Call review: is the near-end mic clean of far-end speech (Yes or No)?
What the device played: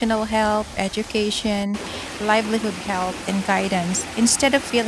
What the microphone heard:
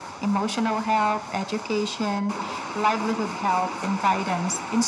No